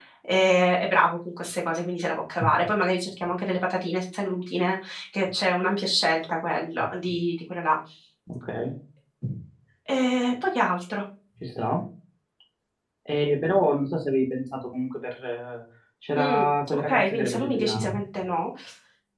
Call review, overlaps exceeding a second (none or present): present